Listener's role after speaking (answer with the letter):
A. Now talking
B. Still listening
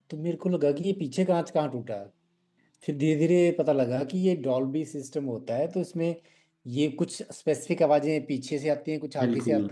B